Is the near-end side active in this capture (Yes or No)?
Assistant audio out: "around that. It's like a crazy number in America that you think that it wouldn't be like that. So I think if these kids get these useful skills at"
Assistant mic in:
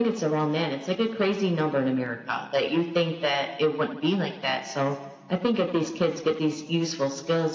No